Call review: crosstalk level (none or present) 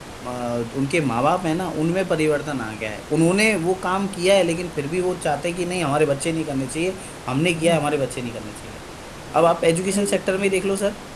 present